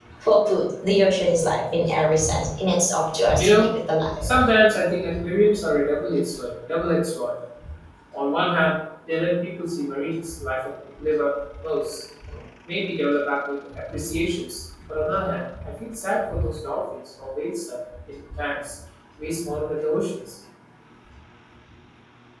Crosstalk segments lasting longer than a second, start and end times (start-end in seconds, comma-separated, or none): none